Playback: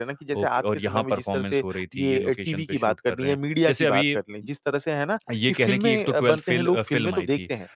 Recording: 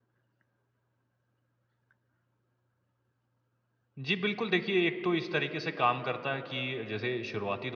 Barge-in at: 4.0 s

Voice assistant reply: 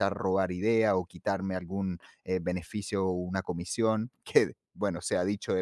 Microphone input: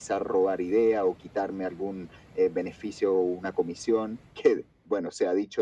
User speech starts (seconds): none

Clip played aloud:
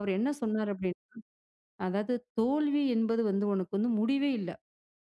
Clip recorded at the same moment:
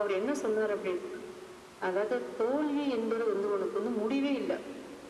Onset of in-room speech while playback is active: none

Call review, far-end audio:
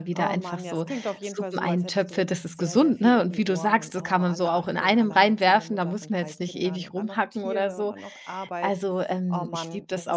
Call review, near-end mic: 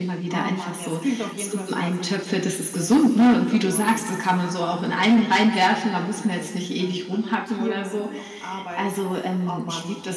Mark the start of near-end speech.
none

